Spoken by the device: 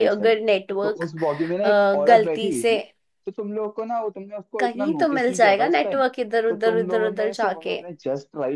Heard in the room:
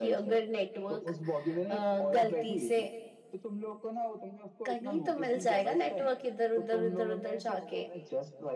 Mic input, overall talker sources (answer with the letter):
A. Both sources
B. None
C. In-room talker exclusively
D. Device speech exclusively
D